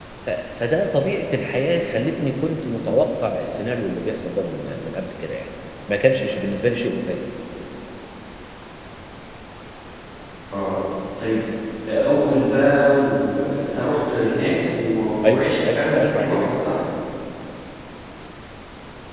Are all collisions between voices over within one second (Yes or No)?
No